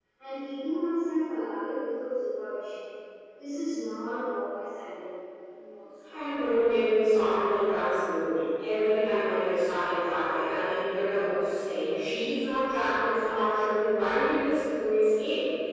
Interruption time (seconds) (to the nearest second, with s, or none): none